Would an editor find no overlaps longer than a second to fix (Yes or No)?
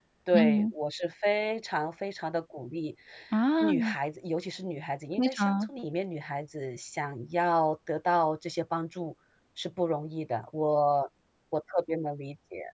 Yes